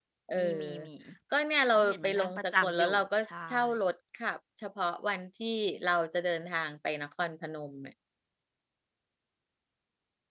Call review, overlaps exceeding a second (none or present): present